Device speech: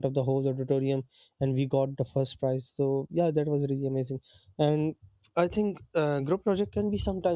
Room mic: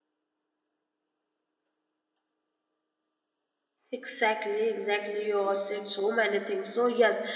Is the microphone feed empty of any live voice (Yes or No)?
No